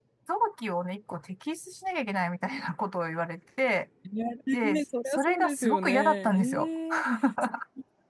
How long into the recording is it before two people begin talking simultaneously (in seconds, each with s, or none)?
4.6 s